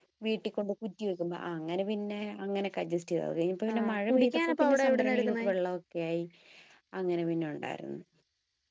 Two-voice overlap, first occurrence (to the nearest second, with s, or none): 4 s